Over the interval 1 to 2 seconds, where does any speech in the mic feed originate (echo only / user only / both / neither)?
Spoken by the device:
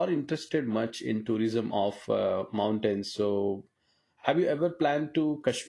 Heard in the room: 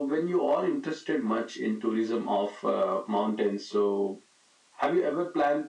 echo only